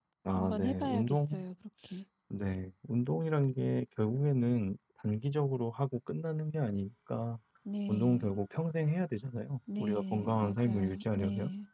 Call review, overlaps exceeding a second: present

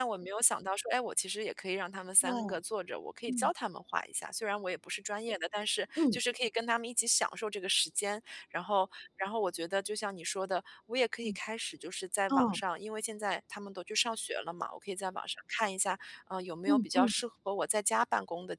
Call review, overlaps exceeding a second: none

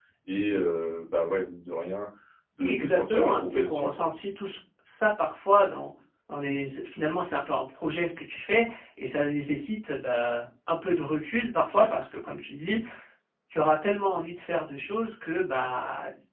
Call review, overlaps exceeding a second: present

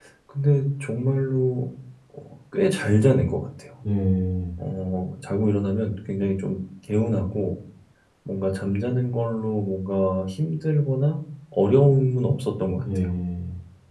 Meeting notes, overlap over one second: none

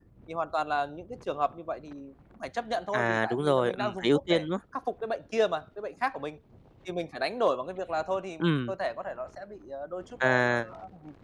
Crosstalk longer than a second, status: present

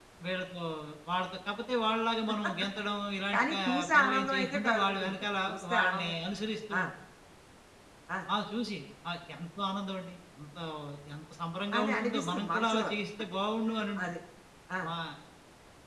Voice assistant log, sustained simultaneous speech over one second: present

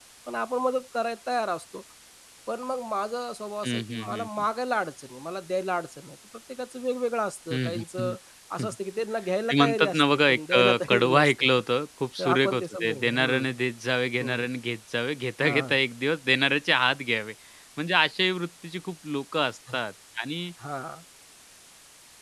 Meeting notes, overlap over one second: present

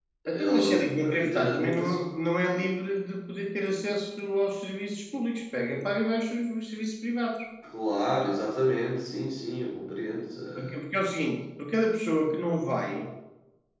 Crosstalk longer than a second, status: present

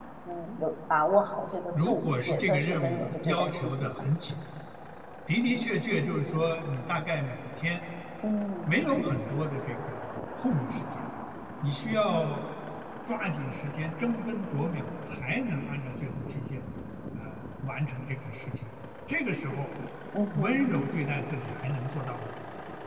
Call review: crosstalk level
present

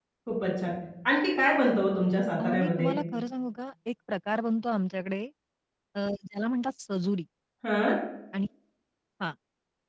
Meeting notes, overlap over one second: none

